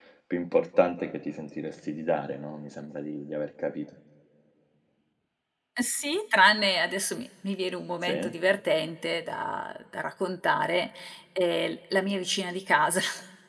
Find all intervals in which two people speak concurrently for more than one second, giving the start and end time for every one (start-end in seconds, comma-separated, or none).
none